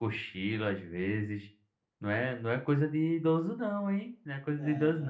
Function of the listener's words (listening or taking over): listening